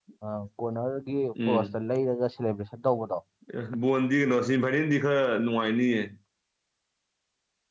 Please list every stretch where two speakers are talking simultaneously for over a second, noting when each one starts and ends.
none

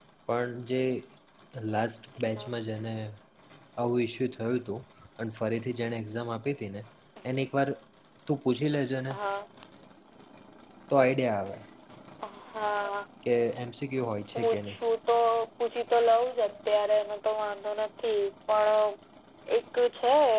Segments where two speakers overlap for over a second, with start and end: none

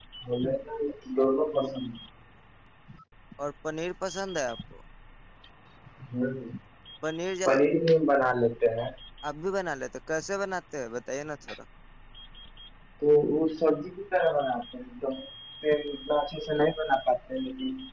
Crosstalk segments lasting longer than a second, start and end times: none

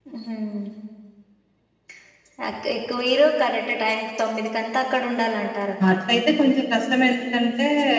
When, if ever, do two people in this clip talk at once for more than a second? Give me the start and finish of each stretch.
none

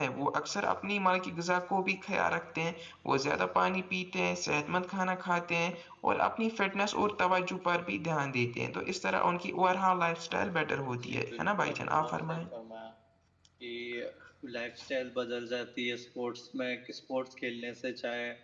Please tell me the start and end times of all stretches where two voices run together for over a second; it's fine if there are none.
11.0-12.4

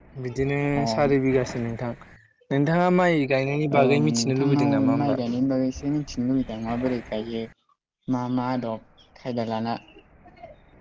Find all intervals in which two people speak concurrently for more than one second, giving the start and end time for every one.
3.8-5.2

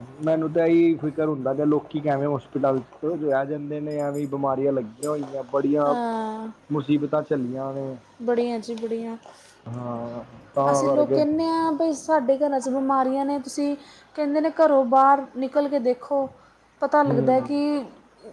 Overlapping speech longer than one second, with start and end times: none

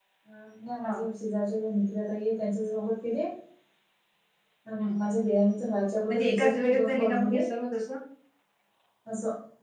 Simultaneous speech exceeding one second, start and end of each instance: 6.1-7.4

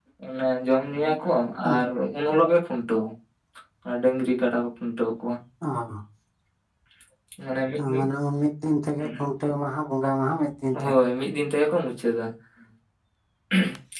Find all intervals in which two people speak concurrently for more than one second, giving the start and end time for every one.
none

